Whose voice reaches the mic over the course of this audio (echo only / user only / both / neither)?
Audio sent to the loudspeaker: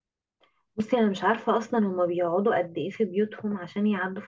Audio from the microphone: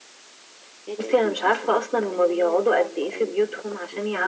both